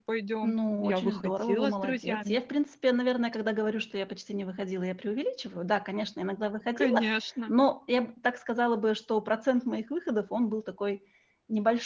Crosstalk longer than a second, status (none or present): present